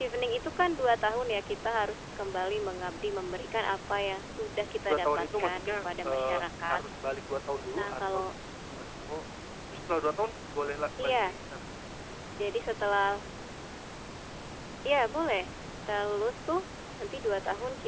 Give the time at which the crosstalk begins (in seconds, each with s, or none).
4.9 s